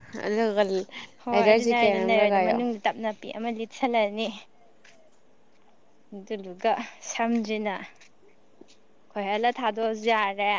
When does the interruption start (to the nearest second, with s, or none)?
1 s